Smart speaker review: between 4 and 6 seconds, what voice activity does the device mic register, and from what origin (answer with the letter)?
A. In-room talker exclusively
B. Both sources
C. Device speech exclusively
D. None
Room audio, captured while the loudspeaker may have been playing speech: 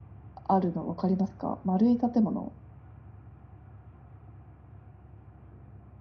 D